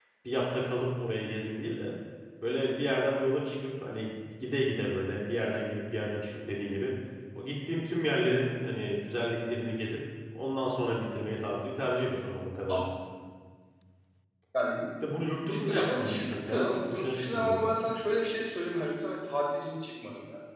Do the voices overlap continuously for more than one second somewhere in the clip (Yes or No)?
Yes